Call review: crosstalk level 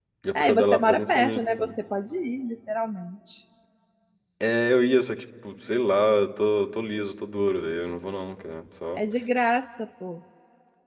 present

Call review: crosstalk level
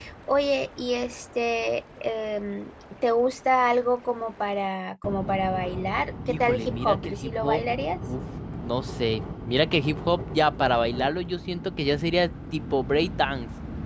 present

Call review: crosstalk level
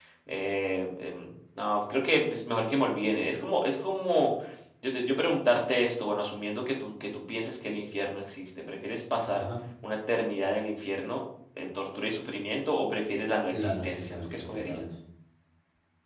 present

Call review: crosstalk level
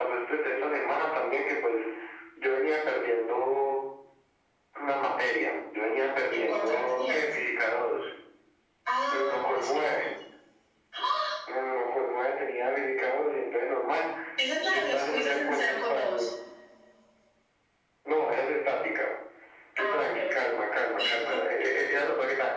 present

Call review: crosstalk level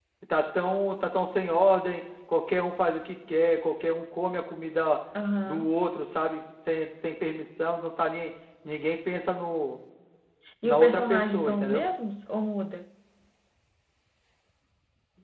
present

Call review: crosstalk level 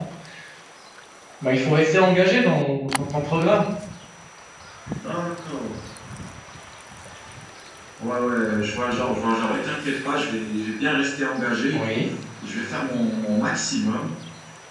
none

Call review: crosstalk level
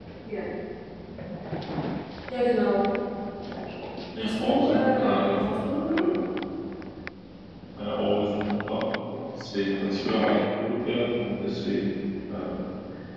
present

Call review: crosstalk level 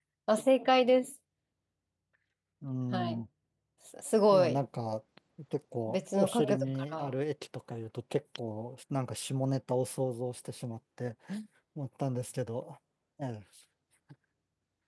present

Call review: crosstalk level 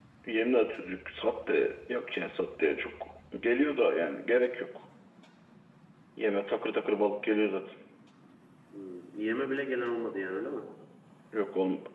none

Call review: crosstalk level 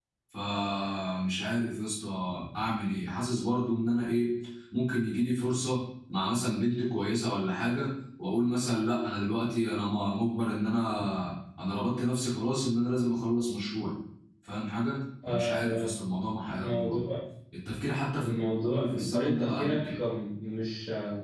present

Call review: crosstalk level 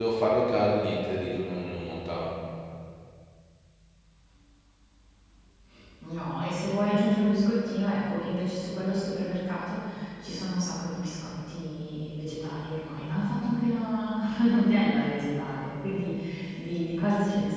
none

